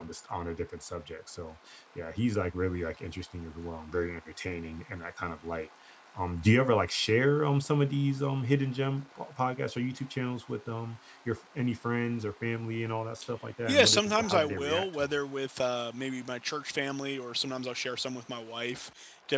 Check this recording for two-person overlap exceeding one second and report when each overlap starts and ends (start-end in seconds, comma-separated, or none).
13.7-15.1